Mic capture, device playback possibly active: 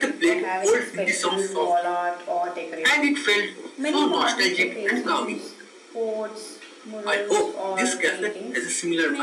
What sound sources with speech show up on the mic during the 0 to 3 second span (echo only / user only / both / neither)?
both